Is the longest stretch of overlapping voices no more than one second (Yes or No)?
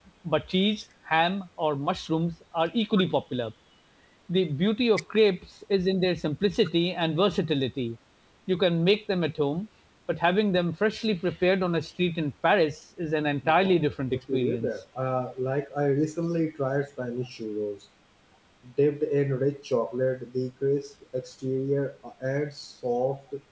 No